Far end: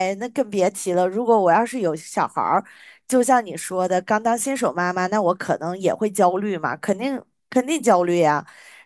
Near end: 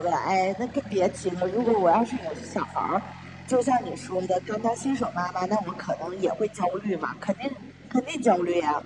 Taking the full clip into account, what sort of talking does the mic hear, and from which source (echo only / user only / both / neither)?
echo only